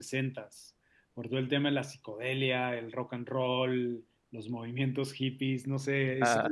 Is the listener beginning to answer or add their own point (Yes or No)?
No